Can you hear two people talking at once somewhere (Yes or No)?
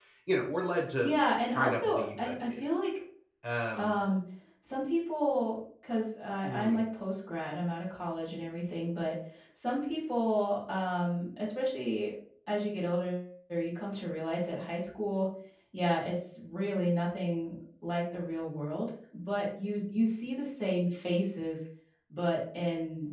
Yes